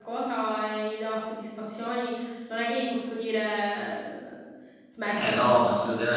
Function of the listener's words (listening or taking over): taking over